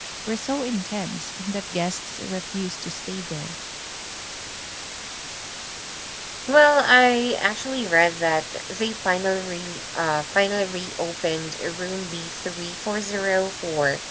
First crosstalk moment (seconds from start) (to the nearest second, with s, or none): none